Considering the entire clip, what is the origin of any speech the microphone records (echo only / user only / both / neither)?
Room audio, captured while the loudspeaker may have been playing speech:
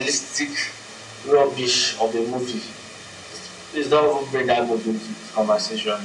echo only